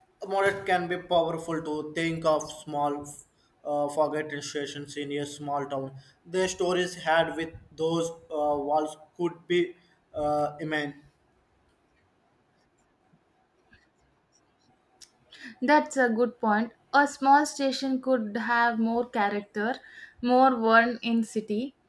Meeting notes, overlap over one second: none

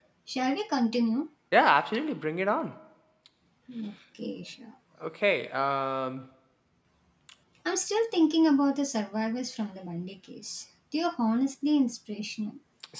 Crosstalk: none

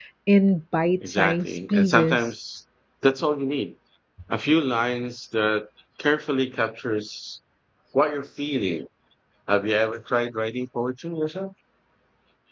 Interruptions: present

